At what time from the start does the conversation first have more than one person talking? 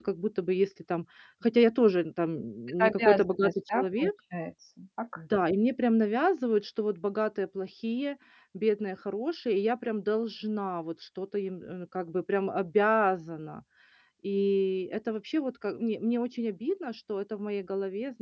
2.8 s

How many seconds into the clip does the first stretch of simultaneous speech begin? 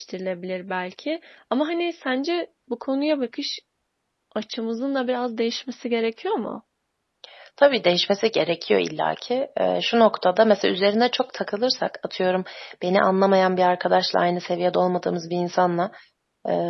none

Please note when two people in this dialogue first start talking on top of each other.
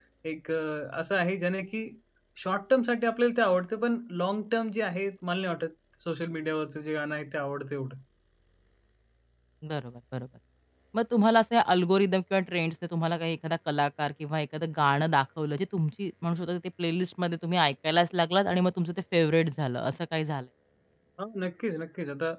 none

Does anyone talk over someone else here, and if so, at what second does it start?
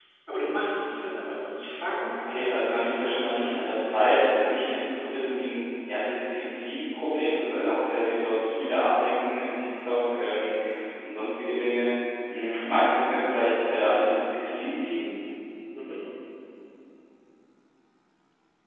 2.1 s

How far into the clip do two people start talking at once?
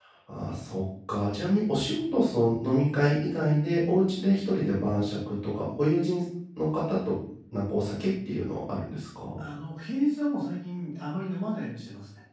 none

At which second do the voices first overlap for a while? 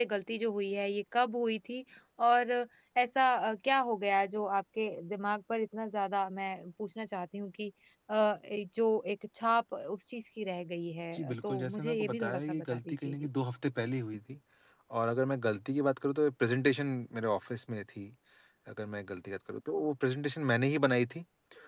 11.1 s

